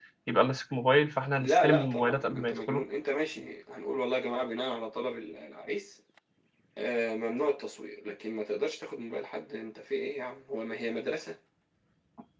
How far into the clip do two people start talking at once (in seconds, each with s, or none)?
1.4 s